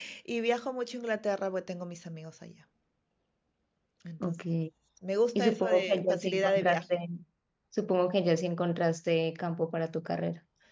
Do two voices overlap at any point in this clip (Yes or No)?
Yes